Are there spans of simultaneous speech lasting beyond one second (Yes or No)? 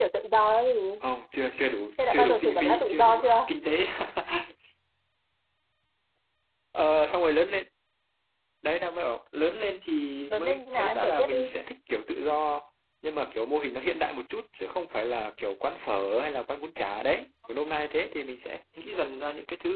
Yes